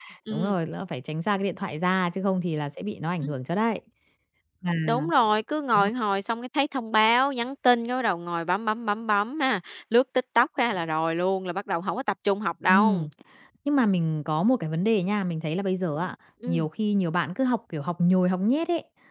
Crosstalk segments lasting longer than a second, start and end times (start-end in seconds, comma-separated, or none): none